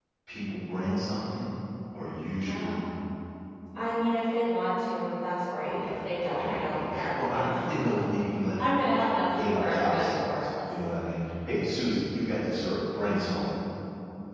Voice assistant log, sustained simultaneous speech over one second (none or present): present